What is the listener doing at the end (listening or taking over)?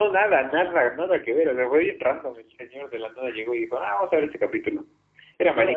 taking over